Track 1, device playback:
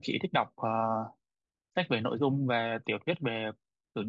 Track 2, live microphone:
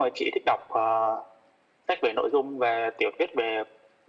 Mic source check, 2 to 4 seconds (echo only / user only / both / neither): echo only